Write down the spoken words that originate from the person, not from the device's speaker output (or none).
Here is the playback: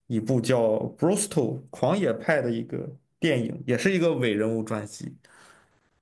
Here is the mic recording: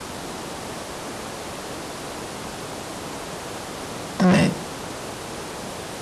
对，